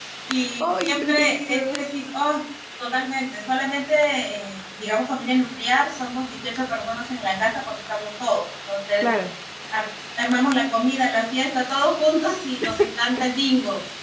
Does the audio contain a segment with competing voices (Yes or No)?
Yes